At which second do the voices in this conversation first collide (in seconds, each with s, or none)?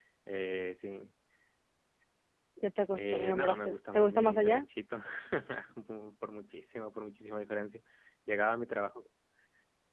3.0 s